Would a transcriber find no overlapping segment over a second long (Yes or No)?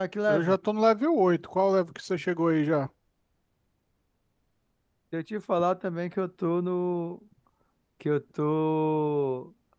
Yes